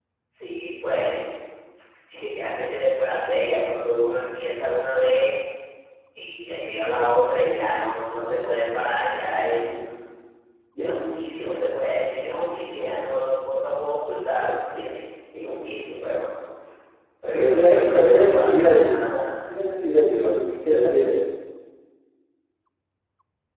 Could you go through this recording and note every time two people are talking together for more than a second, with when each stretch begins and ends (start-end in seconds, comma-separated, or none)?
17.3-19.1